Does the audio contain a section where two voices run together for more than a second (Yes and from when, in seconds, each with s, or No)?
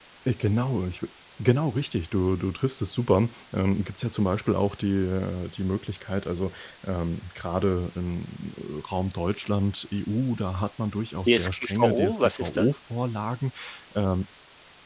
Yes, from 11.3 s